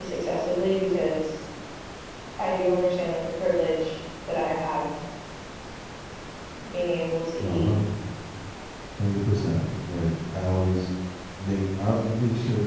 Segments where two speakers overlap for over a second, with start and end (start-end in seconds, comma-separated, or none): none